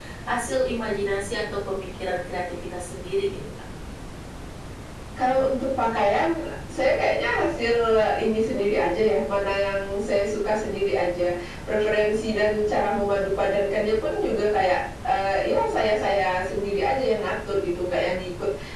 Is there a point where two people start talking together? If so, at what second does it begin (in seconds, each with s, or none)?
none